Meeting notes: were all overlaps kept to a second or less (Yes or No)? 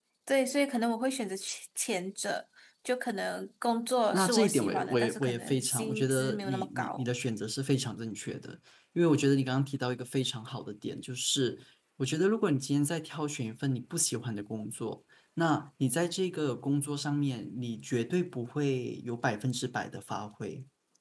No